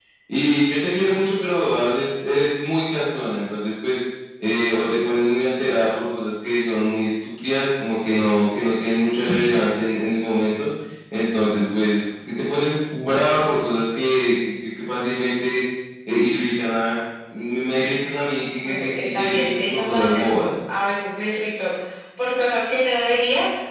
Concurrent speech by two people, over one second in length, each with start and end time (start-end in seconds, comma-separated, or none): 18.6-20.5